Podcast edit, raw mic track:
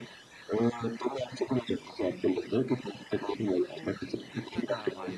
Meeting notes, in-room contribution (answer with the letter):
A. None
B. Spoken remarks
B